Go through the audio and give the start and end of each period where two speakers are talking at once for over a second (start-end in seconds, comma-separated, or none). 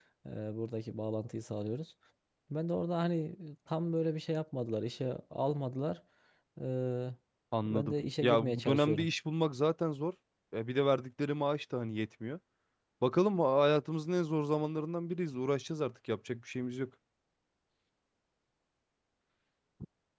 7.7-9.1